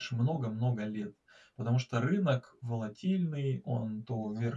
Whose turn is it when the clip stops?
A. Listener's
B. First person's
B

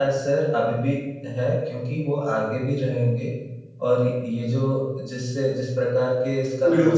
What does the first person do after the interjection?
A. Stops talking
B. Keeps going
A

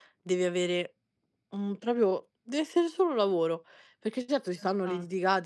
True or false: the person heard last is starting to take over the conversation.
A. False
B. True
A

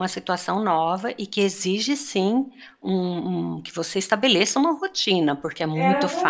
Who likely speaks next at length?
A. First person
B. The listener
B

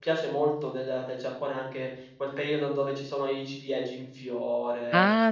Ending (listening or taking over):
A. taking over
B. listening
A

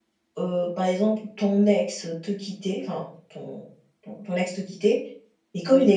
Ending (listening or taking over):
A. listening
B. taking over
A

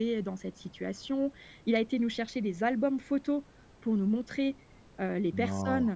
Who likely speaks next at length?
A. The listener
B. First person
B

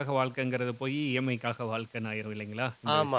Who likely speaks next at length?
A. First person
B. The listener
B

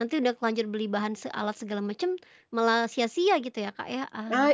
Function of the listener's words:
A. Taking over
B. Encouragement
A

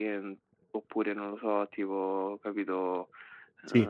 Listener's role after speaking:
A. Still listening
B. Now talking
A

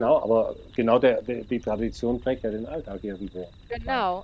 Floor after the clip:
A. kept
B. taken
B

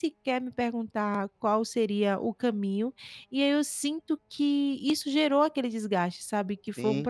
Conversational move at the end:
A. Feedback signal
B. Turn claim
B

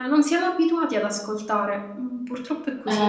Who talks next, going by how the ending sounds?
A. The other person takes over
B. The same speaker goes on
A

